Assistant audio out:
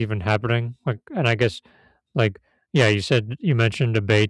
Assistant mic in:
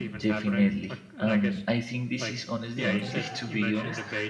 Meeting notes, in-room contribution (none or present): present